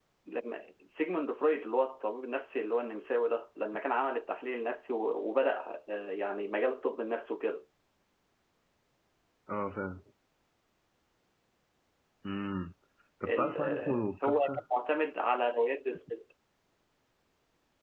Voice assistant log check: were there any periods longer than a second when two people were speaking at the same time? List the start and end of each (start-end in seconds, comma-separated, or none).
13.2-14.6